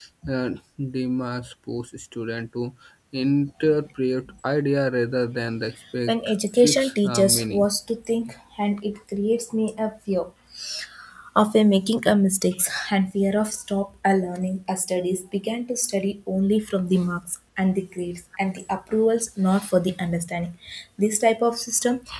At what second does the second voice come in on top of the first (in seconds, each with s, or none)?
6.1 s